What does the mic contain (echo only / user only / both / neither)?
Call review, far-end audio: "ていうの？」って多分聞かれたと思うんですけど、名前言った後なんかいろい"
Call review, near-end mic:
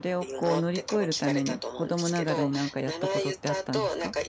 both